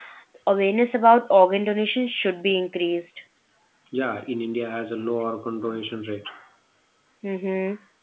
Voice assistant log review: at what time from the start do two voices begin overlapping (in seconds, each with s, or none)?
none